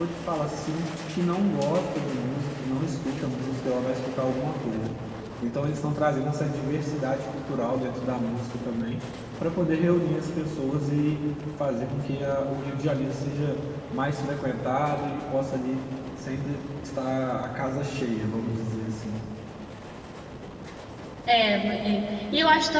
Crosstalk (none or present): none